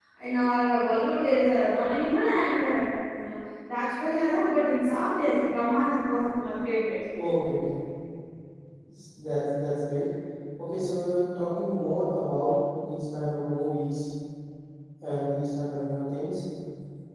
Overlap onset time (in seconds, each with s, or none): none